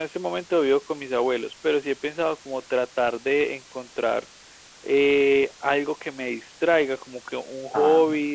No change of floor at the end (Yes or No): Yes